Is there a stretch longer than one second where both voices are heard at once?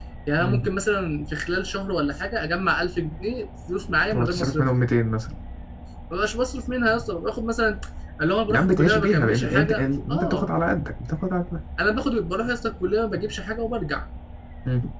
Yes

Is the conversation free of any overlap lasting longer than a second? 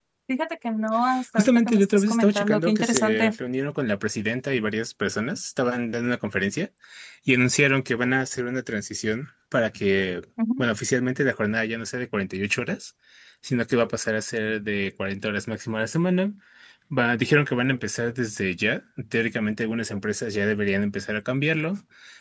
No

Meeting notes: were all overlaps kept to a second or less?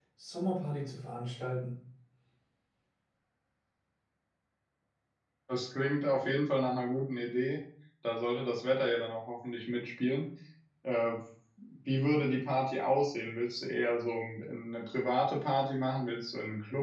Yes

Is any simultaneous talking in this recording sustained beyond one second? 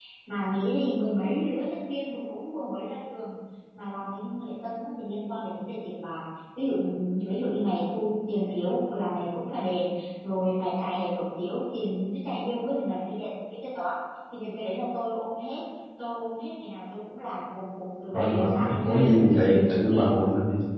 Yes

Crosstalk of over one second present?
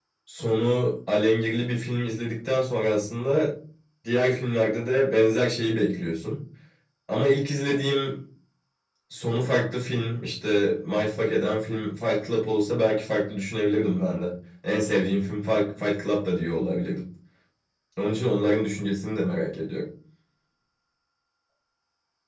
No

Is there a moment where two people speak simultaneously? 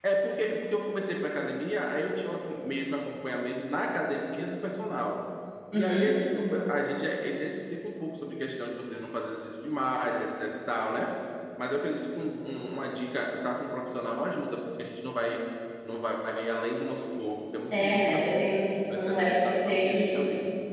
Yes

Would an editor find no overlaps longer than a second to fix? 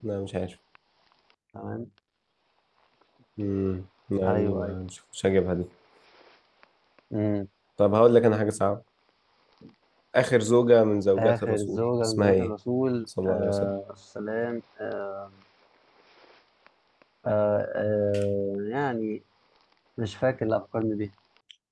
No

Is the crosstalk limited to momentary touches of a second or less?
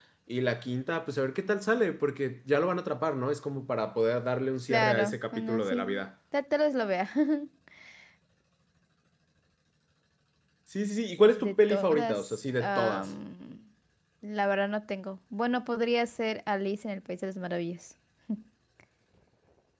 No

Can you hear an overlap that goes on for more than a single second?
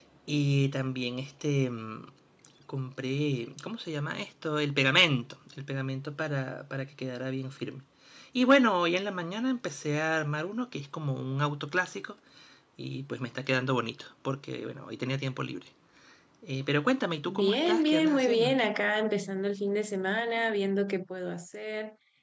Yes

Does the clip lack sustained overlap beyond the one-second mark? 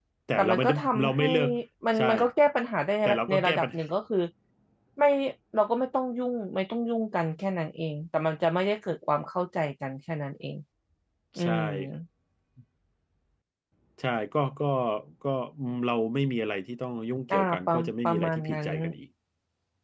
No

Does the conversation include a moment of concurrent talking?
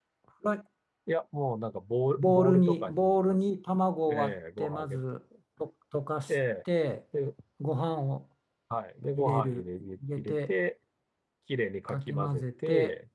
Yes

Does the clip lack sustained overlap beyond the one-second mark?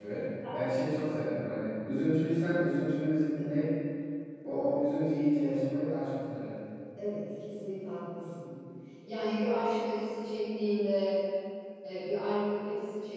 Yes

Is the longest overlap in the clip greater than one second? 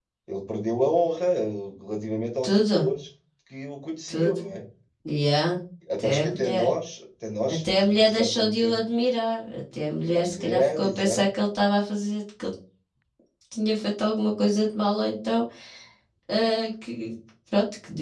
Yes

